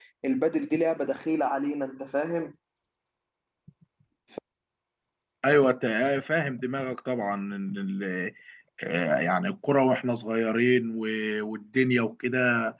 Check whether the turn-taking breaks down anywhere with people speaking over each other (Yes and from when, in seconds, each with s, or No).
No